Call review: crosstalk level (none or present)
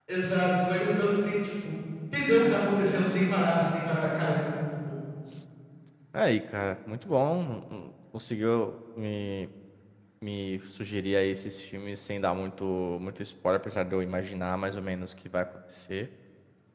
none